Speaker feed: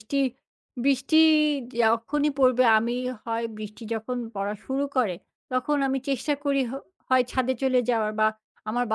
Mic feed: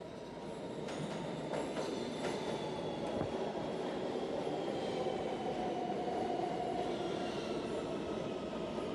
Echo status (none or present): none